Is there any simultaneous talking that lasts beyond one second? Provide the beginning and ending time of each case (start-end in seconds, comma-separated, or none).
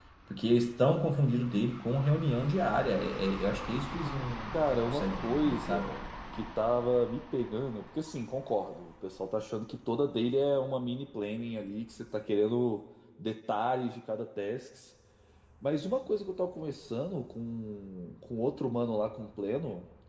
4.5-5.9